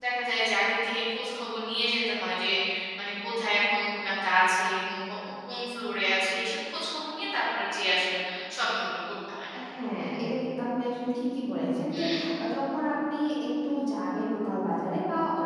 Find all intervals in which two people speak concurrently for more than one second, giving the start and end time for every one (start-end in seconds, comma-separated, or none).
none